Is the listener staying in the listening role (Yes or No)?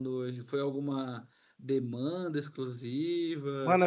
No